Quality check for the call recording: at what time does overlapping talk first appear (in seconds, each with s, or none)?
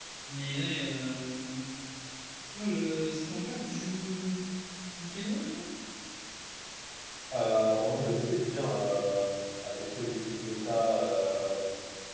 none